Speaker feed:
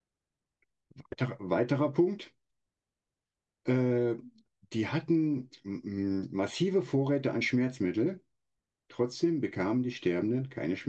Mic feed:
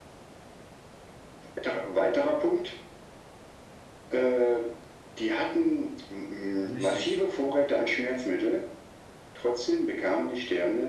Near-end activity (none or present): present